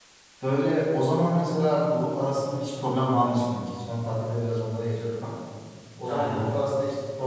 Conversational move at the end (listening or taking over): listening